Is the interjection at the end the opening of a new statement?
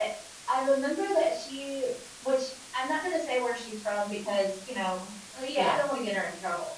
No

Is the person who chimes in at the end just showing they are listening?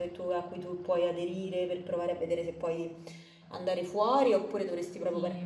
Yes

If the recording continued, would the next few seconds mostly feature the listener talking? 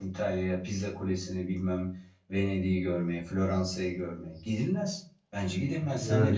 Yes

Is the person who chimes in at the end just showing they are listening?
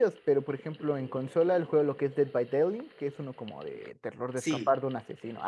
Yes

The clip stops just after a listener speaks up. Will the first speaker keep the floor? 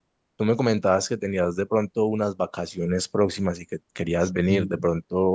Yes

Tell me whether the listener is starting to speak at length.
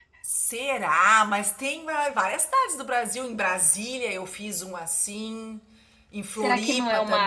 Yes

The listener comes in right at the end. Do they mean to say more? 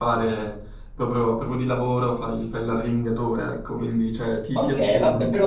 Yes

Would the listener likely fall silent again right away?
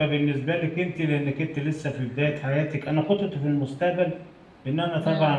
Yes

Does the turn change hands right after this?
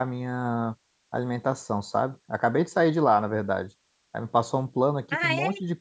No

